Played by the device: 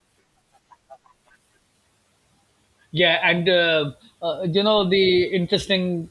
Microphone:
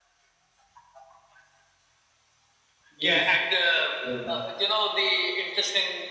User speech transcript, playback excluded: yes, you are right.

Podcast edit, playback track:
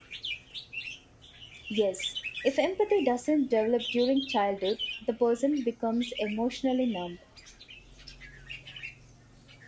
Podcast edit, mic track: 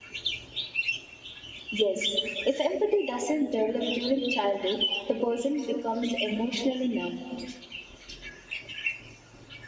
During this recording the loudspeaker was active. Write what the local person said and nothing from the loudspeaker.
none

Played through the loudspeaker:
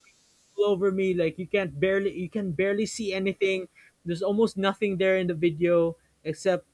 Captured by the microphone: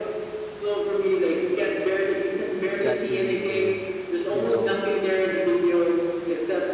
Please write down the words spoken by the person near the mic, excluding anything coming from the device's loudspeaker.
that really is, you know,

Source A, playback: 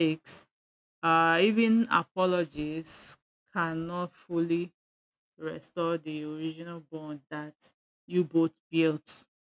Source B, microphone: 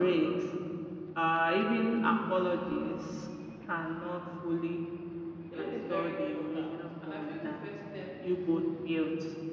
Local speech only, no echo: Healing is very important, and I feel the first step is

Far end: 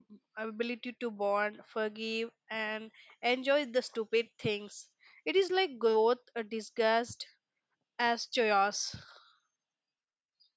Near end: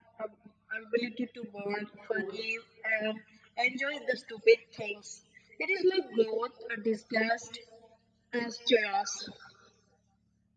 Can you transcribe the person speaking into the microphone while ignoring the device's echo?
quote

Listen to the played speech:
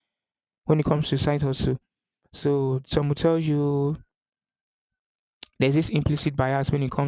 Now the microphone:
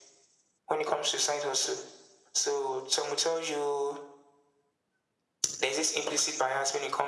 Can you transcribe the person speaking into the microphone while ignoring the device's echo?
none

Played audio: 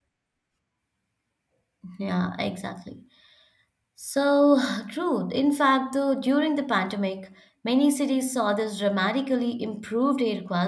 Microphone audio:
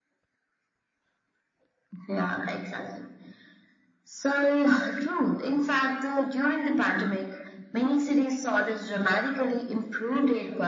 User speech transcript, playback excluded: none

